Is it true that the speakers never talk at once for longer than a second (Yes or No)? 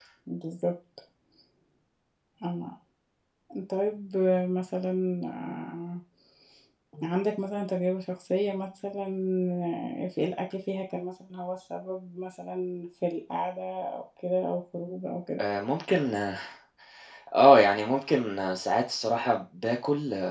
Yes